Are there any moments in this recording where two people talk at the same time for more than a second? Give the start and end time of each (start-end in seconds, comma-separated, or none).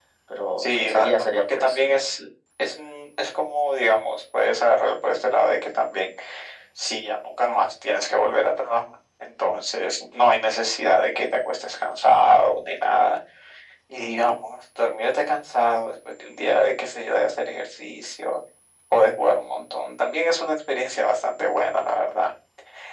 0.6-1.8